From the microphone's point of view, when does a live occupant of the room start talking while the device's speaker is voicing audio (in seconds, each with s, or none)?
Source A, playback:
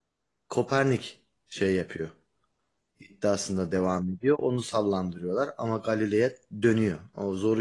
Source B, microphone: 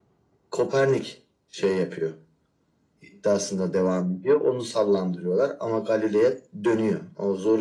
none